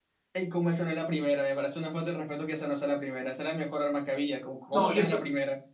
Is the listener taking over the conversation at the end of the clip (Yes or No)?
Yes